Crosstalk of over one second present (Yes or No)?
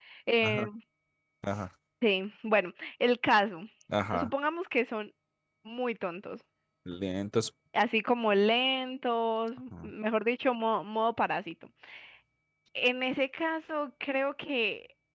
No